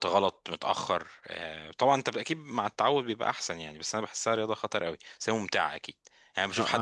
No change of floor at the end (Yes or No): No